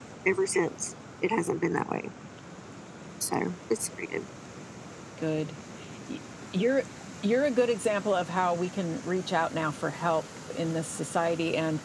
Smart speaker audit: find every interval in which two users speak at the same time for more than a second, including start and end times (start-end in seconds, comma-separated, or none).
none